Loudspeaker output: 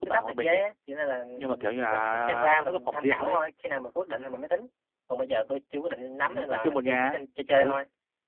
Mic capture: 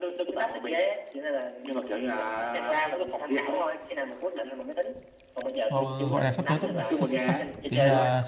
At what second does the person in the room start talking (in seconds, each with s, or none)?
5.7 s